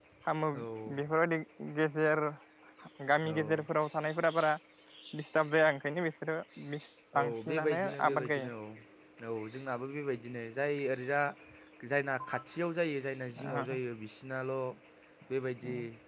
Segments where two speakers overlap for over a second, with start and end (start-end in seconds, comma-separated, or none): 7.2-8.5